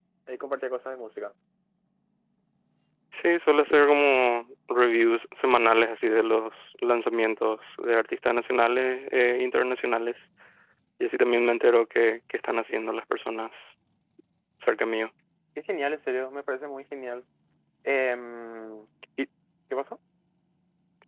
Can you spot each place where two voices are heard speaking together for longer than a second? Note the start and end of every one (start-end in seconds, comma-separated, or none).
none